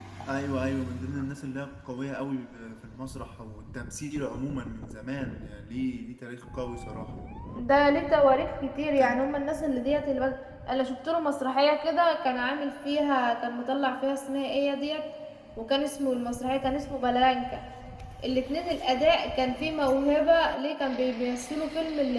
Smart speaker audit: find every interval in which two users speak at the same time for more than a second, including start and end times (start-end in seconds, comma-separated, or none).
none